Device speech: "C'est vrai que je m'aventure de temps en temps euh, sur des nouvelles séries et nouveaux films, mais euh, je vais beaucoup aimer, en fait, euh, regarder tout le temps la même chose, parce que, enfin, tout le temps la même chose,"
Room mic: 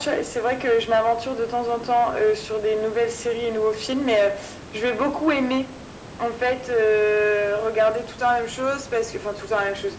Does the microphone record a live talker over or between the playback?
No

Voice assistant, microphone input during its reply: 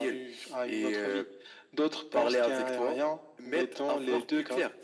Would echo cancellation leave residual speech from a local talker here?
No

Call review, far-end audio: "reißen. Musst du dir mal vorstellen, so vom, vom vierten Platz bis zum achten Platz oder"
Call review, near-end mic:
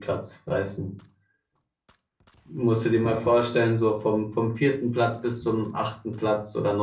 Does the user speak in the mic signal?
No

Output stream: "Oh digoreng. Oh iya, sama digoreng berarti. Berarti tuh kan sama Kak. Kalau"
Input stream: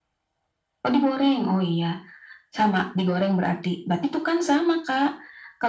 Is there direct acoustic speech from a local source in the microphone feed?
No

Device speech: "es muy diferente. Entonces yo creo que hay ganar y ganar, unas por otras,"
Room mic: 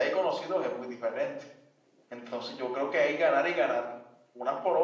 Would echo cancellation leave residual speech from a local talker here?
No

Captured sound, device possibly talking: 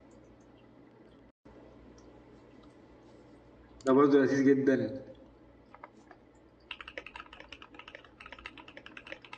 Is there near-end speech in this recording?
Yes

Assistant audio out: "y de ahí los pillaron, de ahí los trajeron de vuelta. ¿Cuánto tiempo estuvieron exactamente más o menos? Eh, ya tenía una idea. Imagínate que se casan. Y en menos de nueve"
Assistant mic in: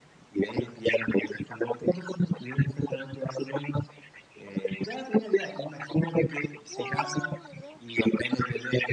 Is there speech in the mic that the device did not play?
Yes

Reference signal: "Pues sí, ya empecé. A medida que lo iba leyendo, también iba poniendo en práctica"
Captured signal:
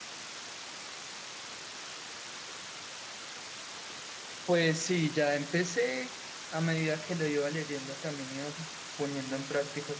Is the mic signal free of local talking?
Yes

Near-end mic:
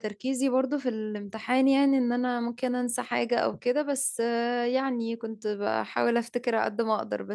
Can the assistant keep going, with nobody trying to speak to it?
No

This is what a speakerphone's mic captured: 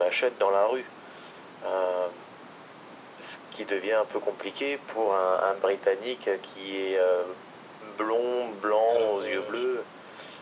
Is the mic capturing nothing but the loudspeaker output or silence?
No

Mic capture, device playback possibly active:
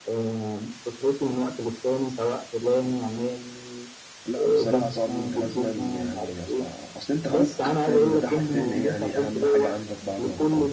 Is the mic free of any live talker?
No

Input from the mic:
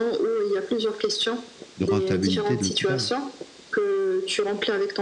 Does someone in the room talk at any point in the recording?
Yes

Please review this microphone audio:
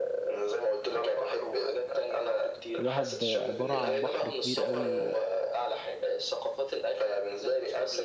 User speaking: Yes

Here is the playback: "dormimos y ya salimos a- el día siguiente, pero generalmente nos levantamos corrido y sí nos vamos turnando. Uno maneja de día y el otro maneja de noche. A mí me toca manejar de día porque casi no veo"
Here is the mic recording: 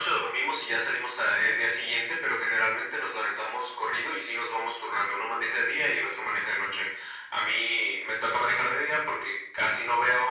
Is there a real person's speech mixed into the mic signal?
No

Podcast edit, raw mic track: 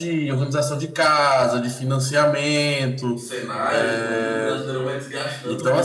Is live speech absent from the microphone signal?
No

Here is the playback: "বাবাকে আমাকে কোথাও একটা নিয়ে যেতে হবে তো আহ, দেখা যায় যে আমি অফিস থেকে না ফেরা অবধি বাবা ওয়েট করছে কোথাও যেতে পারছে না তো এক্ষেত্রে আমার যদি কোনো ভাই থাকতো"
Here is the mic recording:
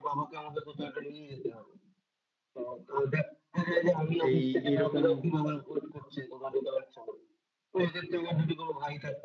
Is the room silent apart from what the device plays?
No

